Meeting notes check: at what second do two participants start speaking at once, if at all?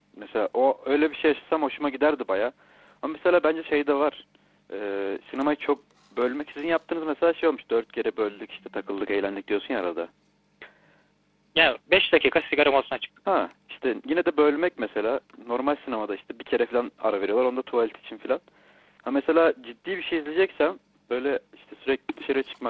none

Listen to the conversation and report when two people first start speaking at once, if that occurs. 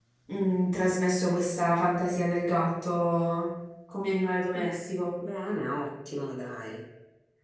none

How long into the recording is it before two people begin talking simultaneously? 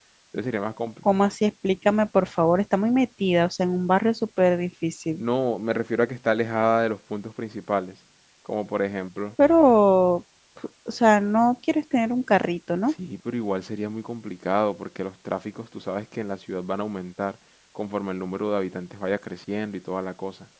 none

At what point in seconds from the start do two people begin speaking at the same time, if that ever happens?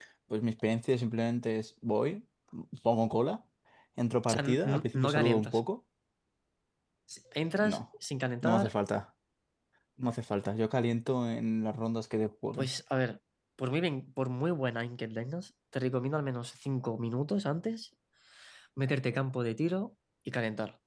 4.3 s

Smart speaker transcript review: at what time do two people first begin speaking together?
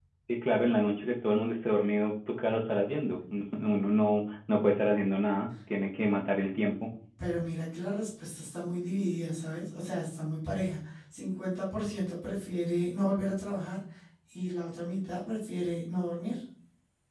none

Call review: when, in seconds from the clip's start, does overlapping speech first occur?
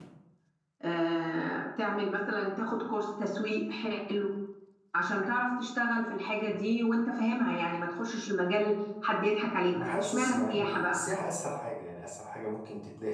9.7 s

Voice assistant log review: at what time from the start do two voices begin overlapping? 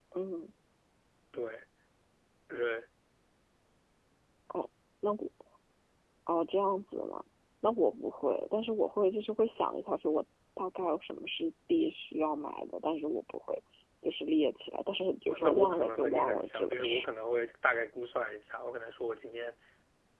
15.3 s

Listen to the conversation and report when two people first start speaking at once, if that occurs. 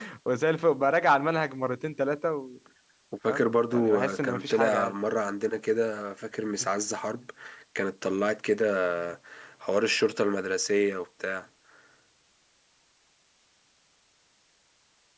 3.3 s

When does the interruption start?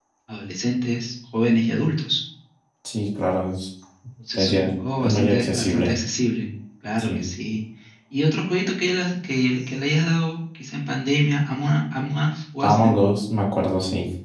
4.3 s

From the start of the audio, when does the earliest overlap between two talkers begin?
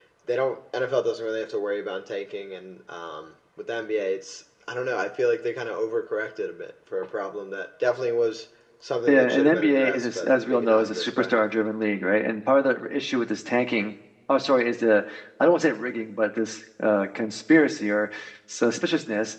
9.1 s

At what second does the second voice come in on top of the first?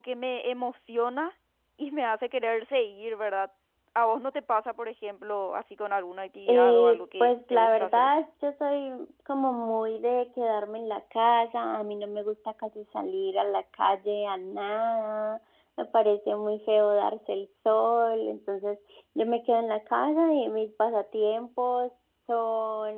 6.5 s

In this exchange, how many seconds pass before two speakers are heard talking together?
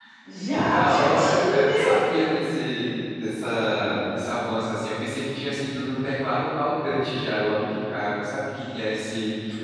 0.5 s

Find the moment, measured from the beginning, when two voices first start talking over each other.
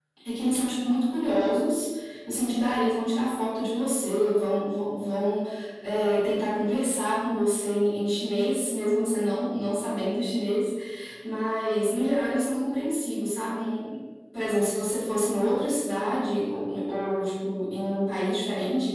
none

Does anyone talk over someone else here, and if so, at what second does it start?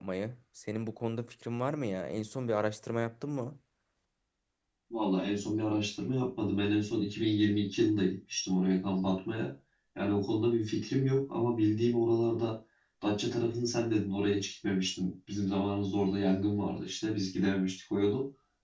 none

